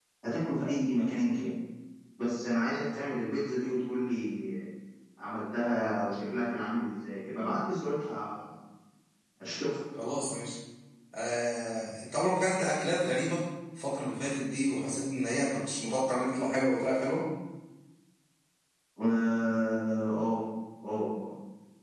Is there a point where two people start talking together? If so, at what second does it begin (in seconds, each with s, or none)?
none